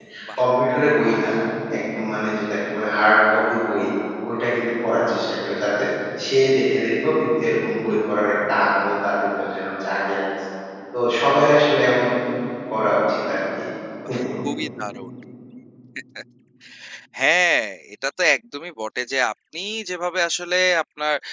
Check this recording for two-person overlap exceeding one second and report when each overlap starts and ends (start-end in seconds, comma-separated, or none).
none